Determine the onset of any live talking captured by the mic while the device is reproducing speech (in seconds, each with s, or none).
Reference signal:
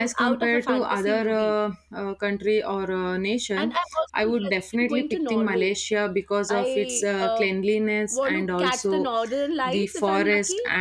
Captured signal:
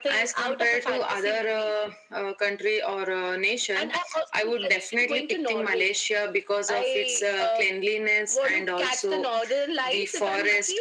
none